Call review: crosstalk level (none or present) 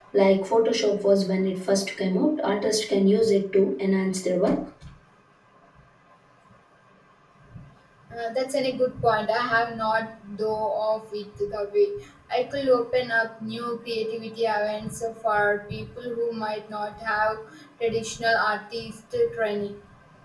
none